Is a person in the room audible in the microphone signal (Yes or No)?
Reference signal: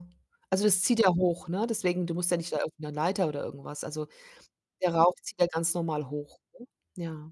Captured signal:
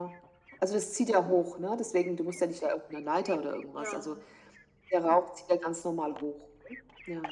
Yes